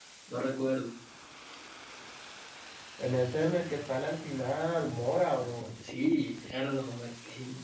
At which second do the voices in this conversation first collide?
none

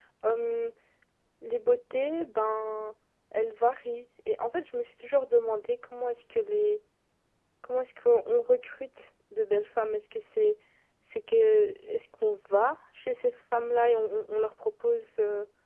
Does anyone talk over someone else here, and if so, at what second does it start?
none

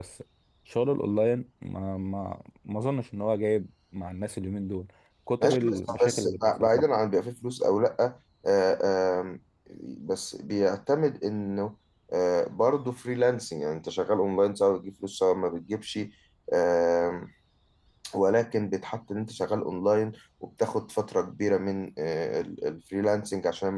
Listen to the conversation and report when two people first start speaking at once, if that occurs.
5.4 s

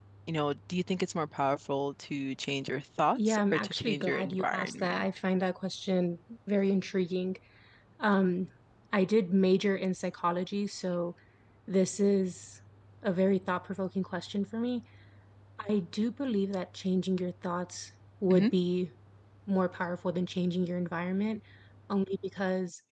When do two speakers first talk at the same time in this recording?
3.2 s

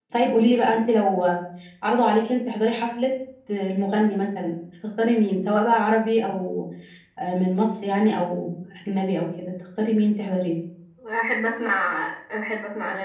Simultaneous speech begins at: none

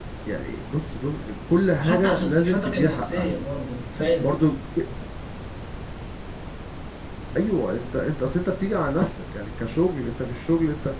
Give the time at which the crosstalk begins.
1.8 s

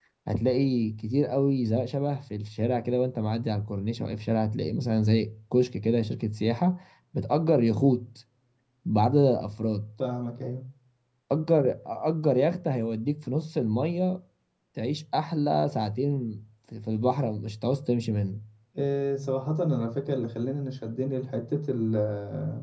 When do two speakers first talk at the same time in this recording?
none

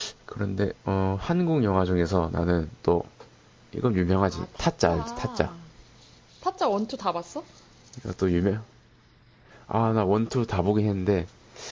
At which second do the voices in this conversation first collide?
4.3 s

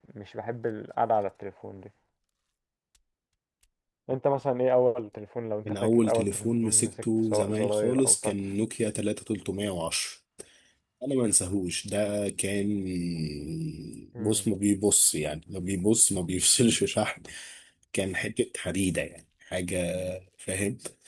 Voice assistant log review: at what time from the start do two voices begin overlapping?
5.6 s

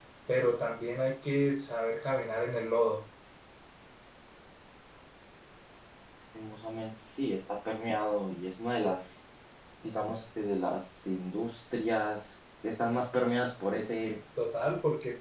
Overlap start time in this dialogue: none

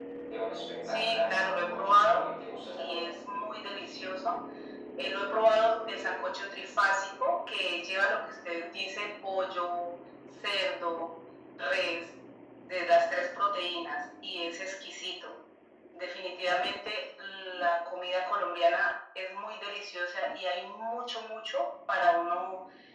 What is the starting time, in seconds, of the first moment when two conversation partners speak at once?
0.9 s

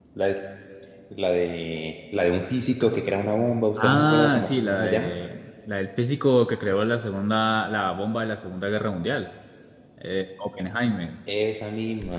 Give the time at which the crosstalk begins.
3.8 s

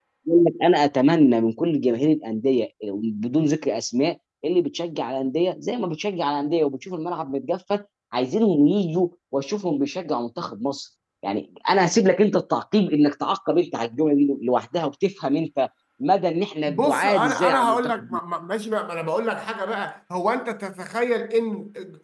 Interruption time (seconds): 16.7 s

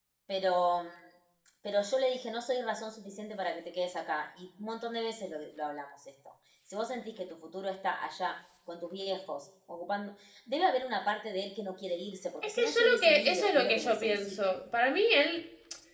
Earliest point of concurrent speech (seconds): 12.4 s

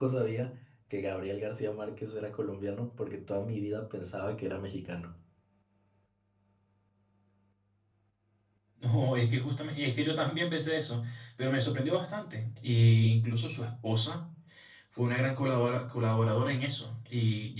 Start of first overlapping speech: none

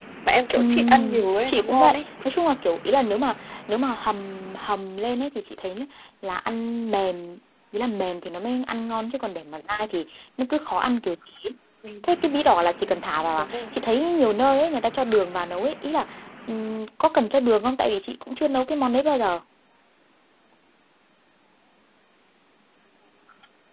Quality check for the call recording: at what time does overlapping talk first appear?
0.6 s

